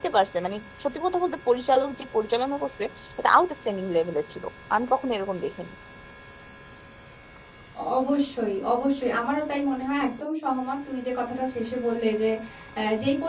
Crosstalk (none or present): none